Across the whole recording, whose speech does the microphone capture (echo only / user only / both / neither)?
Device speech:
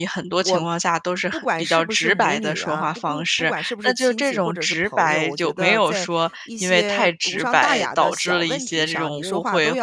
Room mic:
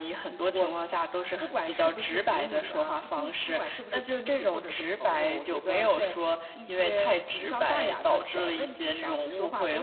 echo only